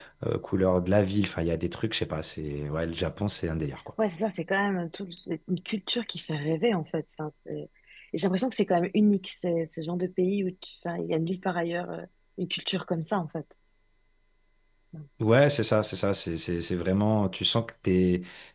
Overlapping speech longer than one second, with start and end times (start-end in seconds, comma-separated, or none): none